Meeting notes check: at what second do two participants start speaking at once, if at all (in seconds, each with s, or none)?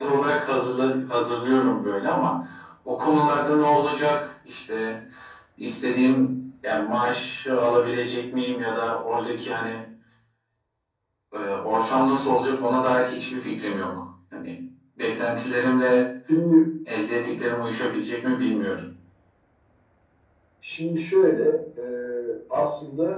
none